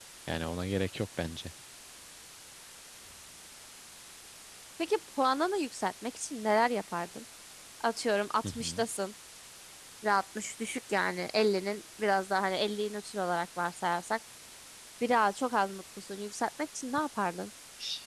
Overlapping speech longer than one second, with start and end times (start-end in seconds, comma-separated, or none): none